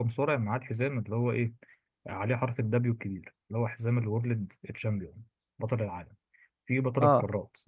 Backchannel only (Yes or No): Yes